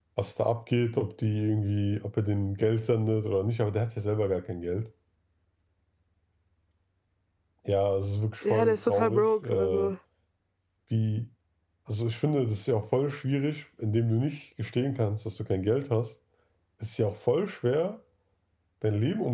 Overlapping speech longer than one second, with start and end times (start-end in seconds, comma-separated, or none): 8.5-9.9